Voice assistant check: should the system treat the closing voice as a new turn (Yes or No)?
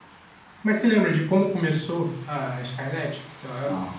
No